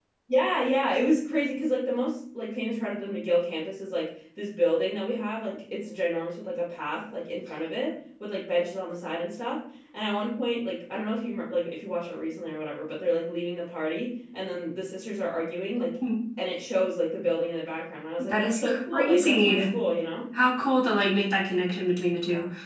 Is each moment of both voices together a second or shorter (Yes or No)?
No